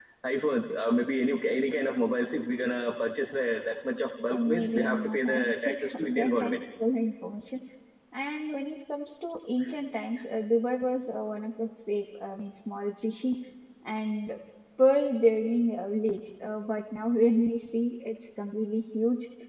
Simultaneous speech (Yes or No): Yes